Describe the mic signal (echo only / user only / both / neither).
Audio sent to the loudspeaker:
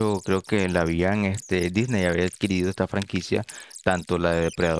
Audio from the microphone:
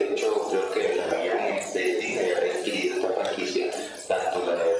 echo only